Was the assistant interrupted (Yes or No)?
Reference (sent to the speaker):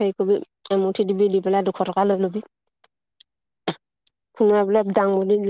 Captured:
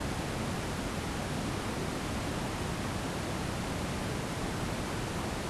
No